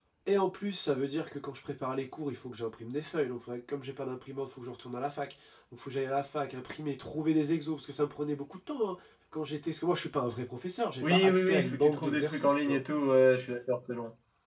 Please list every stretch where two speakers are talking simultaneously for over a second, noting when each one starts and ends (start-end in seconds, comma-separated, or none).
11.0-12.8